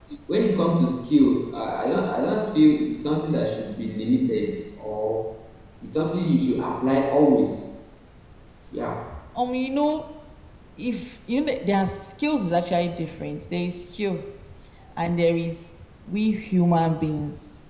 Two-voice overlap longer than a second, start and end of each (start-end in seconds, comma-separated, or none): none